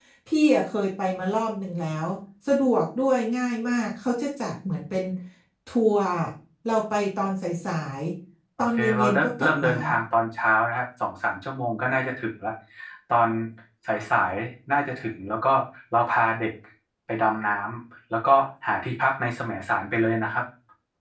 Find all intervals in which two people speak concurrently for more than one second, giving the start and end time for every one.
8.6-9.8

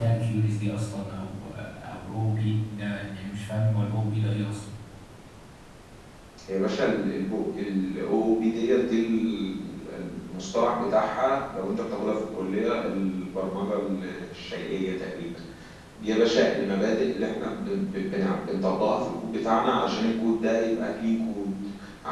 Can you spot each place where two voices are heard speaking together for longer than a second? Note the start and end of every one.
none

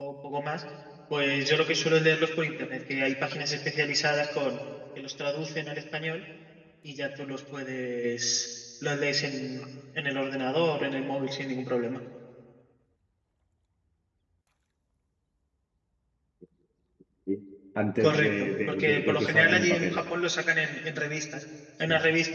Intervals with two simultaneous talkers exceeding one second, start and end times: 18.0-20.1

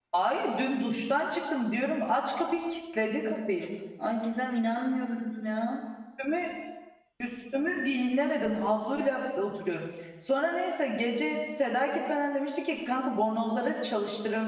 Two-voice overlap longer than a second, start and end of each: none

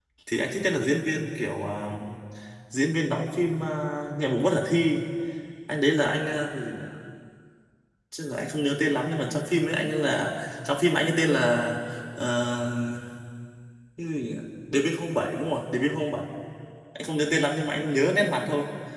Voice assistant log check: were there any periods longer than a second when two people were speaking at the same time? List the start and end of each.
none

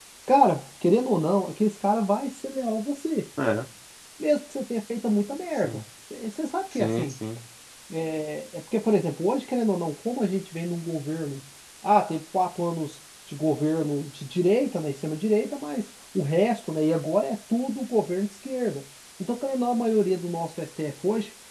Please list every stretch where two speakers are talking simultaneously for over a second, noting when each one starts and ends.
none

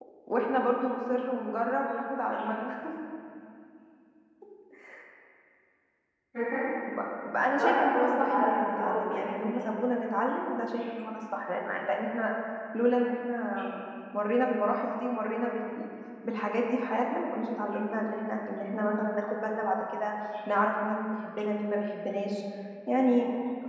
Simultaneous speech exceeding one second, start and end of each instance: 7.6-9.5

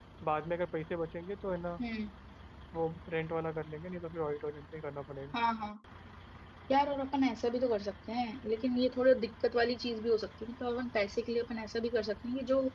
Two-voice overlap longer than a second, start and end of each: none

